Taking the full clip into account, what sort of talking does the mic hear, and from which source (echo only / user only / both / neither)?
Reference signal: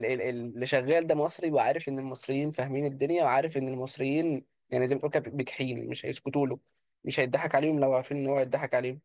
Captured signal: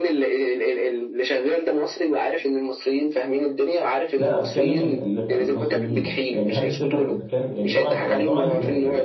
both